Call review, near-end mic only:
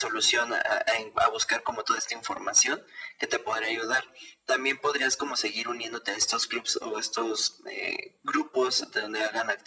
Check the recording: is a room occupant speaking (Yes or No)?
No